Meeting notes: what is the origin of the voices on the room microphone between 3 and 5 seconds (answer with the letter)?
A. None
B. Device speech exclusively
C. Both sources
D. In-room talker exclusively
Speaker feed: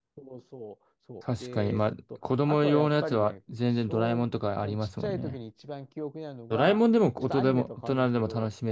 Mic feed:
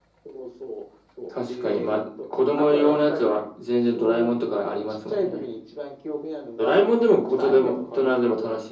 B